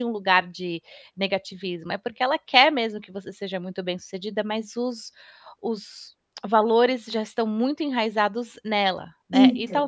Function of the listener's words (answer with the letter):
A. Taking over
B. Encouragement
B